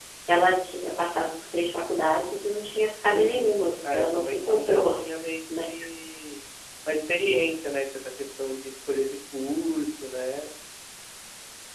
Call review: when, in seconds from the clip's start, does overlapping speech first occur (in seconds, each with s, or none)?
3.1 s